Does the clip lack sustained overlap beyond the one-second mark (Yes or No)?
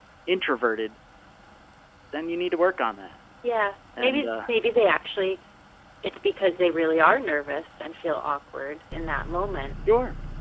Yes